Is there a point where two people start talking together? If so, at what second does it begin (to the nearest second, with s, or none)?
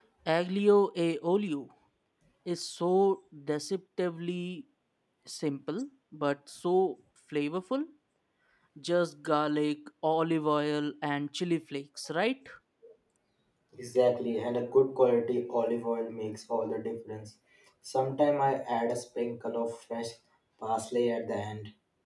none